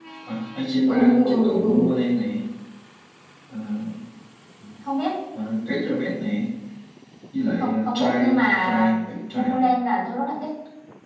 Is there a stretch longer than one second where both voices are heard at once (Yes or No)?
Yes